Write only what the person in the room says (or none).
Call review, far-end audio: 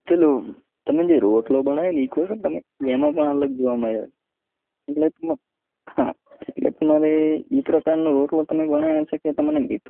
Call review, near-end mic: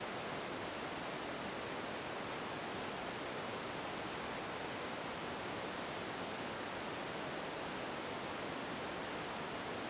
none